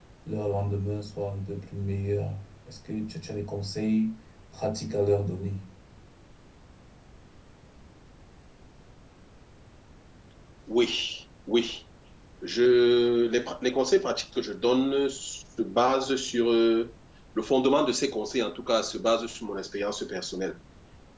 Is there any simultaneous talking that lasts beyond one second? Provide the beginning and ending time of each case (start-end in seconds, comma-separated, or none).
none